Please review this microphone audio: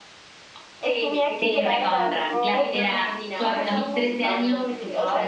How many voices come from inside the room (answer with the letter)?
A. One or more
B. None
A